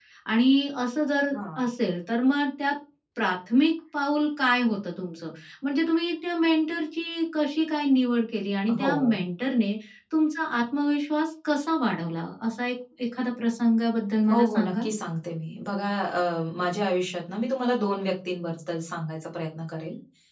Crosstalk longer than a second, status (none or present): none